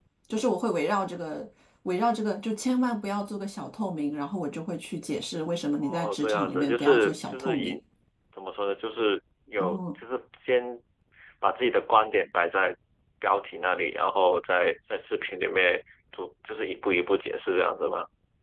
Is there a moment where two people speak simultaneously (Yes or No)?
Yes